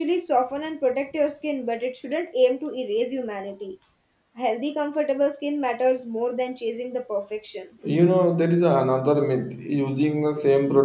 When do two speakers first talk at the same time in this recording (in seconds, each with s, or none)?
none